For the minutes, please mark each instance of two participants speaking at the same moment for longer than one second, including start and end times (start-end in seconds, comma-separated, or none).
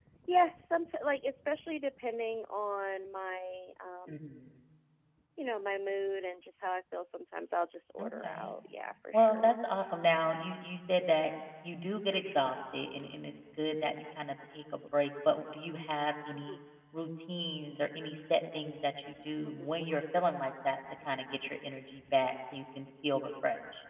none